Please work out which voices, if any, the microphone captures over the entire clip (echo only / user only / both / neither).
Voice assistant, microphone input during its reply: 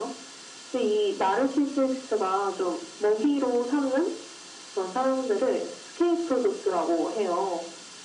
echo only